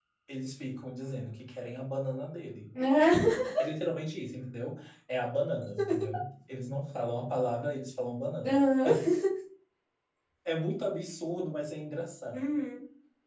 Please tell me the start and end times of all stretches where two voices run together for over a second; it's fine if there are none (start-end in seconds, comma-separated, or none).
none